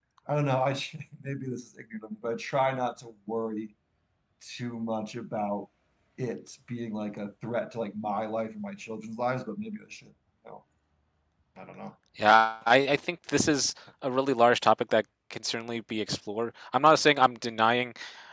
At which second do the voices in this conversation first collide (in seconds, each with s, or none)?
none